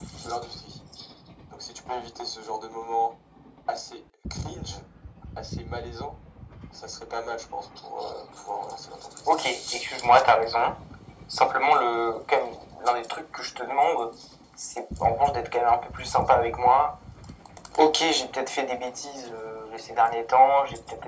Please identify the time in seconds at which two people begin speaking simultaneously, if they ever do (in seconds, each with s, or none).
none